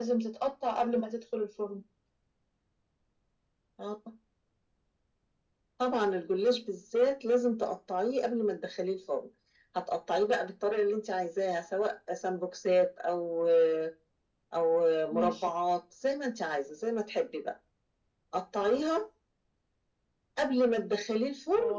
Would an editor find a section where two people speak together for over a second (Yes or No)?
No